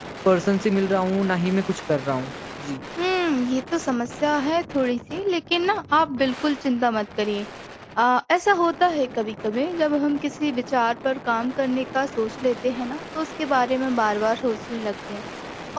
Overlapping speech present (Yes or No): No